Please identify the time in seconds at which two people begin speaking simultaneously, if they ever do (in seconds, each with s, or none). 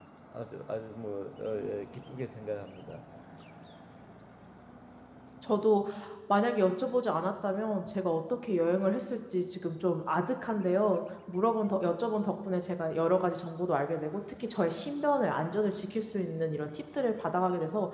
none